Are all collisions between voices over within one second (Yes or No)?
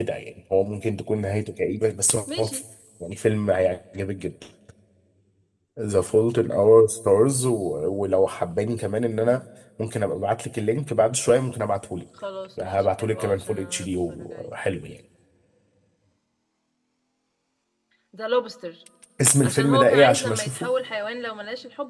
No